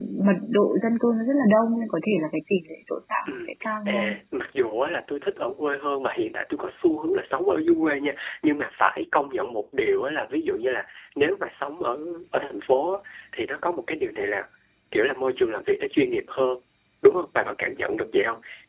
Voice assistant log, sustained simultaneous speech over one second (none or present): none